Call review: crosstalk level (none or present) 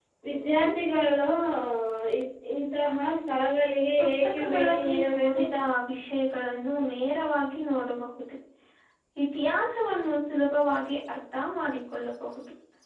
present